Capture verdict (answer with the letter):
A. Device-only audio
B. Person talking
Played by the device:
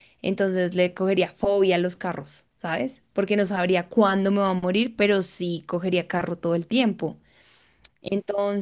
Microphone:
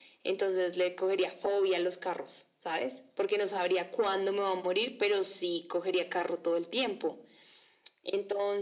A